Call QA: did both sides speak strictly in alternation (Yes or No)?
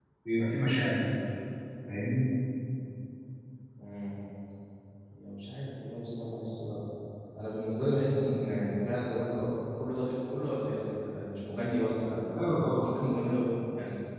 Yes